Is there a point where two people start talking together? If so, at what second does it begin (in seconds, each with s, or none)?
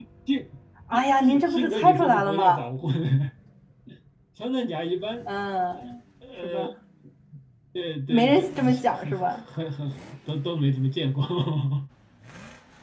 0.9 s